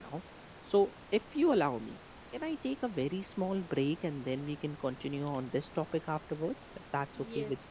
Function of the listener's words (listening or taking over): taking over